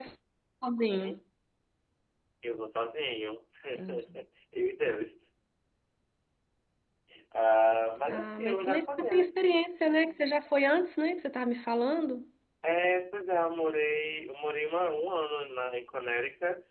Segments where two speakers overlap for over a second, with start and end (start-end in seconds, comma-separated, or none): 8.1-9.3